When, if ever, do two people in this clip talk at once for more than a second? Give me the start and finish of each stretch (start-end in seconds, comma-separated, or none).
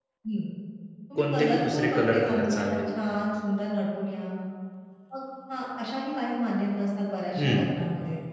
1.2-2.8